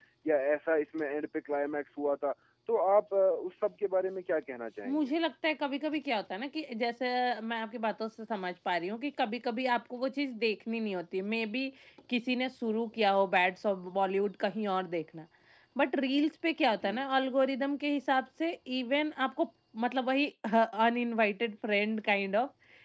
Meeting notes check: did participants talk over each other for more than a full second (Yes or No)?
No